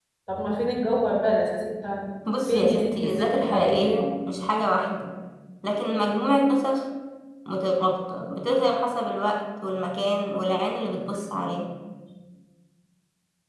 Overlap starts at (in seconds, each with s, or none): 2.3 s